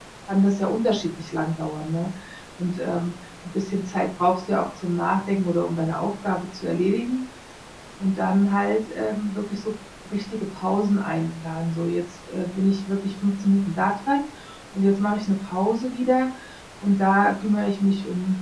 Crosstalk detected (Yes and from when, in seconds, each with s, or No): No